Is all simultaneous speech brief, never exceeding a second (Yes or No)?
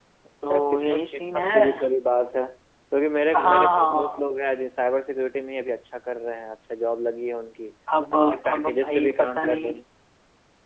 No